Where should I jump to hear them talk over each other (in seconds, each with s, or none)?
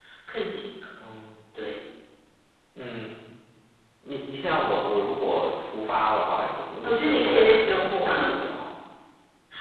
6.8 s